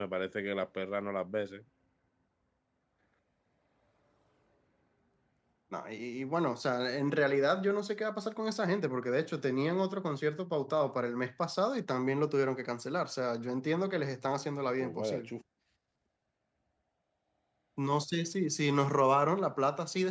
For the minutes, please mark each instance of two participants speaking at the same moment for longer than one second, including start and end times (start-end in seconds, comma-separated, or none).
none